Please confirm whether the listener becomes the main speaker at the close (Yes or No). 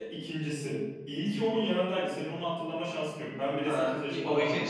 Yes